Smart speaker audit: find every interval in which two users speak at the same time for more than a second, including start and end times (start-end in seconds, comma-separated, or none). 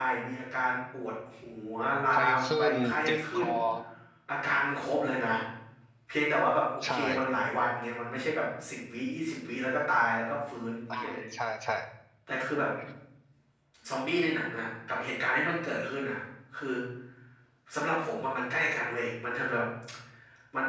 2.1-3.5